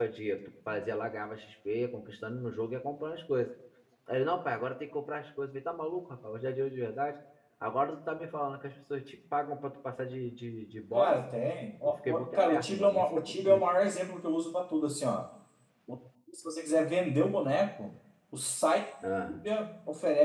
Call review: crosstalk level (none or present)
present